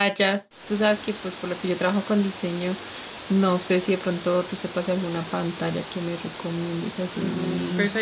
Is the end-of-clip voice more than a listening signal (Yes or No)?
Yes